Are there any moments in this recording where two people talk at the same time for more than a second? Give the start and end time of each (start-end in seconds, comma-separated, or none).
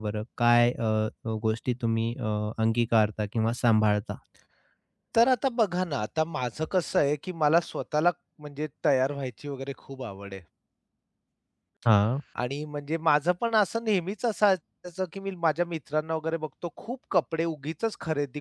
none